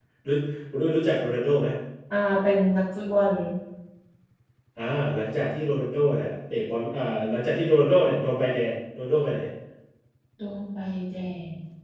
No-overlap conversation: Yes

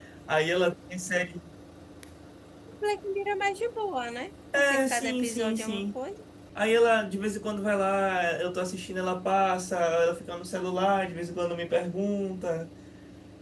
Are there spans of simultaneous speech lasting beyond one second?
Yes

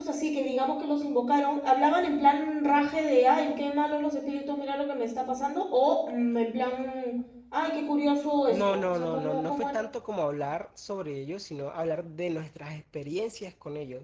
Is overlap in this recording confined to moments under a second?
No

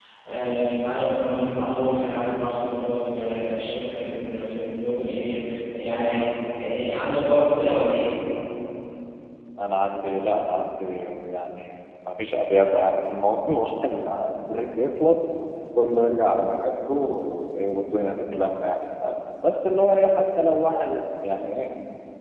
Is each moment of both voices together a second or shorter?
Yes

